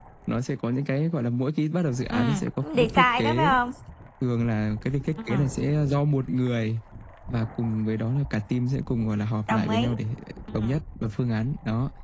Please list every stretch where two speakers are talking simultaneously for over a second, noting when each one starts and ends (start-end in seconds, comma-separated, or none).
2.1-3.5